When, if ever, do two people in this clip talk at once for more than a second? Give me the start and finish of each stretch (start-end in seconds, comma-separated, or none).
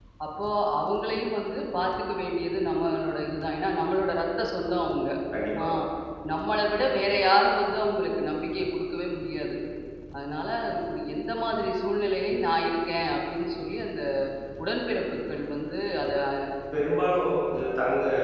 none